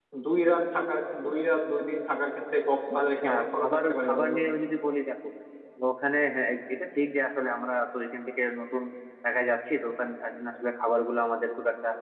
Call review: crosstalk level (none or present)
present